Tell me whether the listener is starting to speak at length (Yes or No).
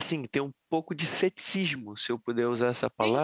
No